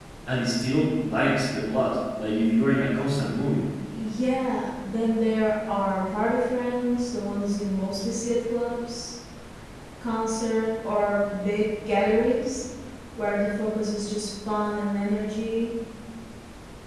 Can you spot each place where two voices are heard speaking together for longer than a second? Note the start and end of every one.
none

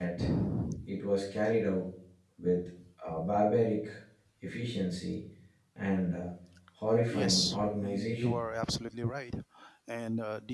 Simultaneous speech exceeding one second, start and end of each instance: 7.1-8.4

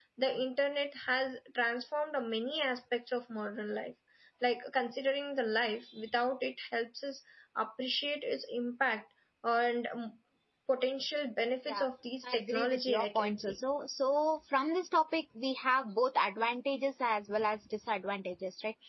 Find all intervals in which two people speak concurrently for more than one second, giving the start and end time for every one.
12.2-13.6

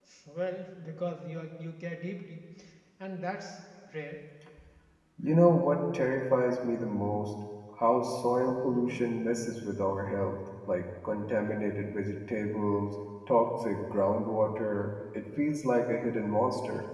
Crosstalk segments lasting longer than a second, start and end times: none

